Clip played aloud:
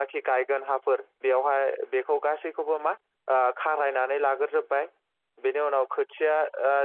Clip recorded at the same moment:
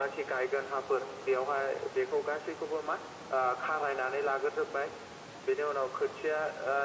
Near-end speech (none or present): none